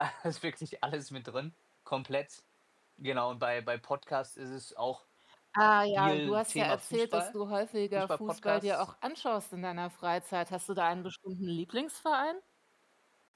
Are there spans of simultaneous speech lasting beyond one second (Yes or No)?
Yes